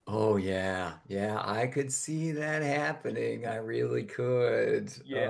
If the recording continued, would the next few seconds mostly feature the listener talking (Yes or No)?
Yes